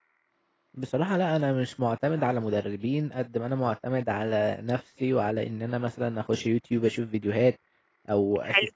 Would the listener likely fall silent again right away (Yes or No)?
Yes